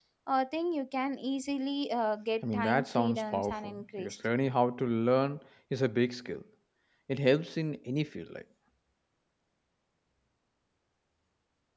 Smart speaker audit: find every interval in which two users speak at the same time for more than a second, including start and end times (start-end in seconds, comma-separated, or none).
2.5-4.2